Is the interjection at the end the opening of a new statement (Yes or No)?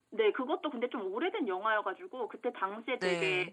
No